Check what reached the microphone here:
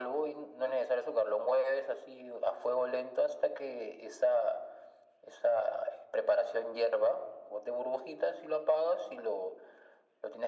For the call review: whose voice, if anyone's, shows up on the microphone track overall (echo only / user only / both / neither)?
echo only